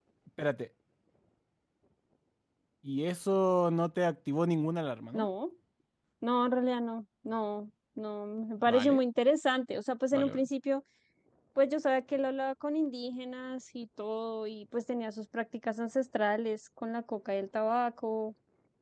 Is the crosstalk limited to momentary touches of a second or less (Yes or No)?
Yes